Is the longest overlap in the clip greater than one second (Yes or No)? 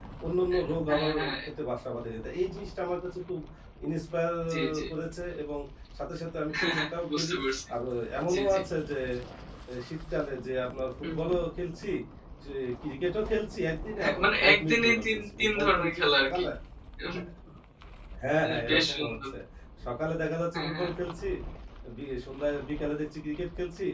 Yes